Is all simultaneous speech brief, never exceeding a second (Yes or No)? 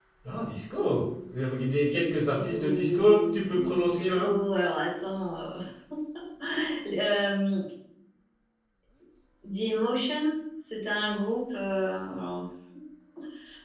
No